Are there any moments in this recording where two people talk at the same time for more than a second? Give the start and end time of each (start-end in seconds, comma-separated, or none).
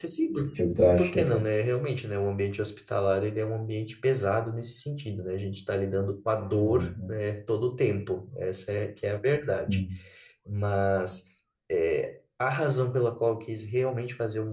none